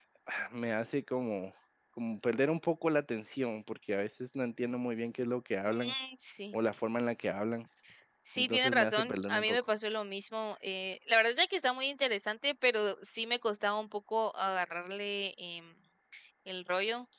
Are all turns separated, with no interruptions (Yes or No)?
No